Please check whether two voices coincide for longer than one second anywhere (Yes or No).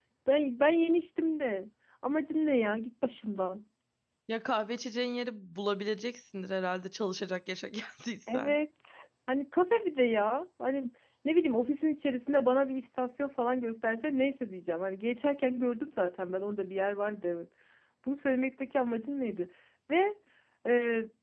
No